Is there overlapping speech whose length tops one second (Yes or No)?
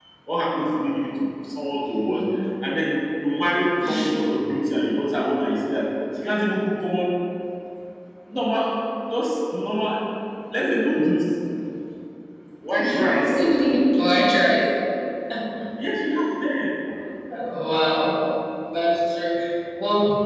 No